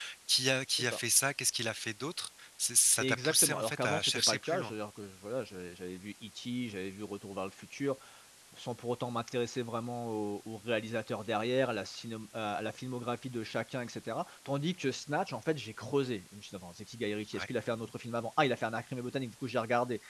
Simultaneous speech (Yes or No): Yes